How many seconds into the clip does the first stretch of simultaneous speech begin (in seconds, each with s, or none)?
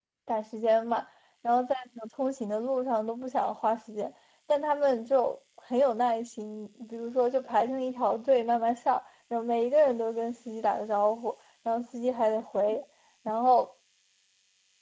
none